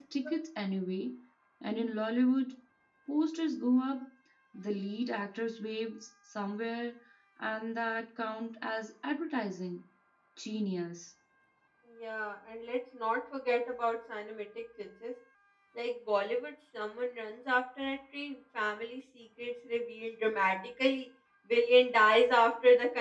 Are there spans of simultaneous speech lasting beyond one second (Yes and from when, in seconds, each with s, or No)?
No